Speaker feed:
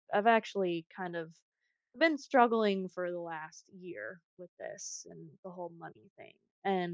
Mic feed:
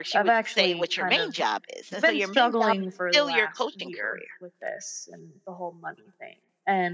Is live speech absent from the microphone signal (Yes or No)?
No